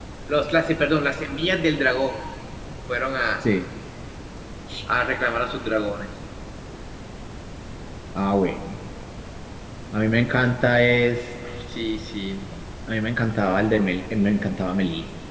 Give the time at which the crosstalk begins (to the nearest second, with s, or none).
none